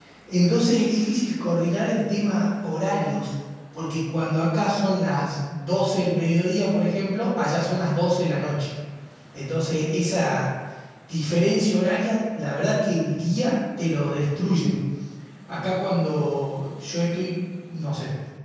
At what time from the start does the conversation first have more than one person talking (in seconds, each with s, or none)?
none